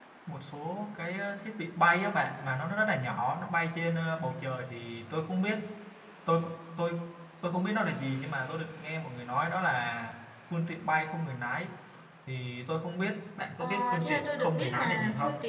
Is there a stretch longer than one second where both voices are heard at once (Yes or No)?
Yes